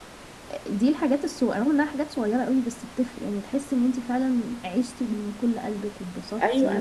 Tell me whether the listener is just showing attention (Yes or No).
No